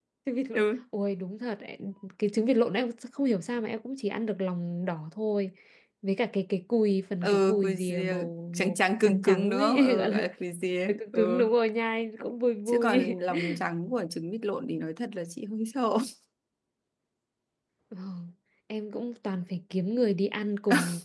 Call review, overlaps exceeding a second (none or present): present